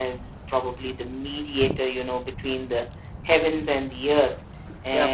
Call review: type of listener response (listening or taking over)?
listening